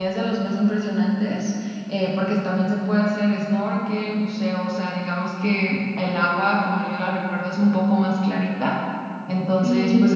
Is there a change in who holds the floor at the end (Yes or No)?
No